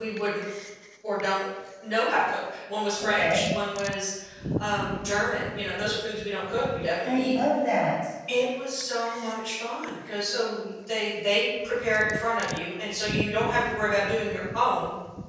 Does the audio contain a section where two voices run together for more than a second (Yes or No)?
No